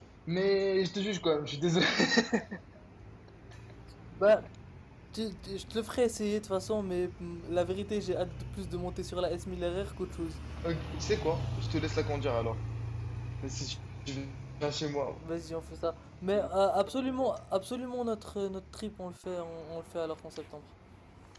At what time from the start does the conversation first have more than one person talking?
none

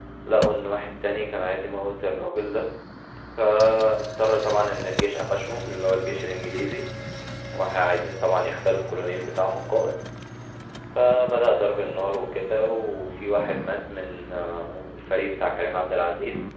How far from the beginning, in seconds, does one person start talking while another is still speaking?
none

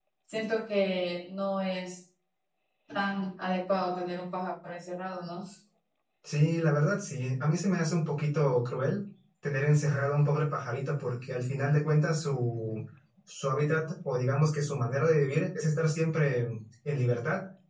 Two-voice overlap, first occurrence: none

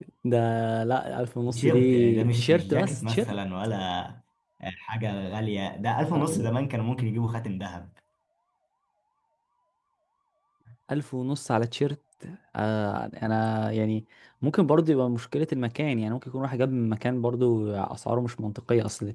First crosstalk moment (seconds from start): 1.5 s

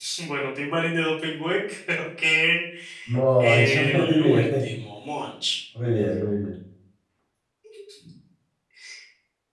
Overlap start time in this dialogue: 3.4 s

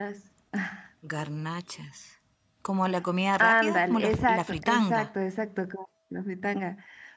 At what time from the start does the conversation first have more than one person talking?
3.4 s

